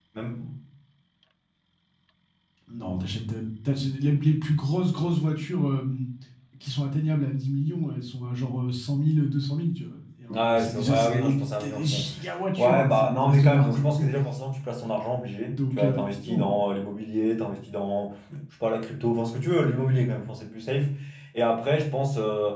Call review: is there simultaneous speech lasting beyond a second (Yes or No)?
Yes